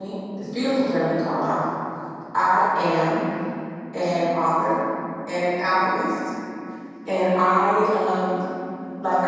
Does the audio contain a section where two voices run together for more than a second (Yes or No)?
No